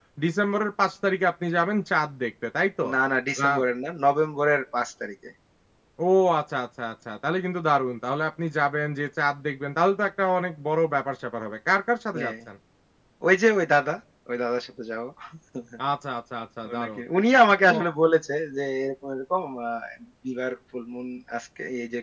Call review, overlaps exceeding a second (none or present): none